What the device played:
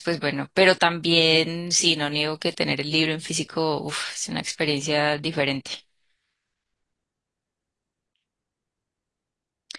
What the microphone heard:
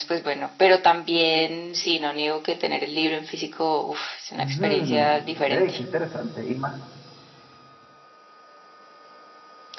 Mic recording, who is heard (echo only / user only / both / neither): both